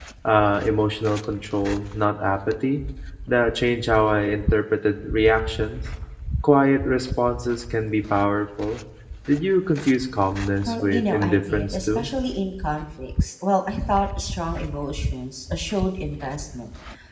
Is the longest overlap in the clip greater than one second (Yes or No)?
Yes